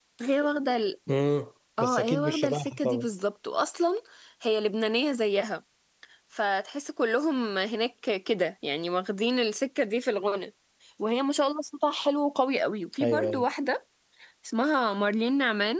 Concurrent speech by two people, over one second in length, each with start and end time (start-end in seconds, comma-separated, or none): 1.8-3.1